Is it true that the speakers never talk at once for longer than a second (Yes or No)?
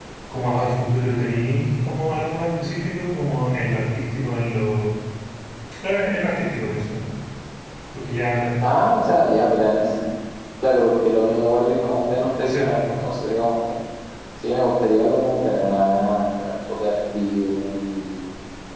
Yes